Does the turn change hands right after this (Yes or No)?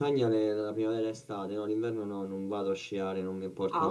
Yes